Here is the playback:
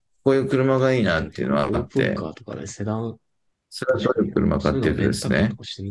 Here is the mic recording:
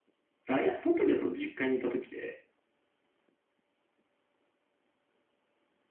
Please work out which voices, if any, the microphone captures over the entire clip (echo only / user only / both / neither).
user only